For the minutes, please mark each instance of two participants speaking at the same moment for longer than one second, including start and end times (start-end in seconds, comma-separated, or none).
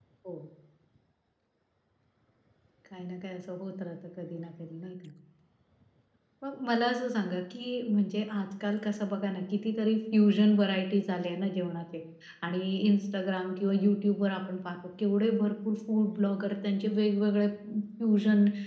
none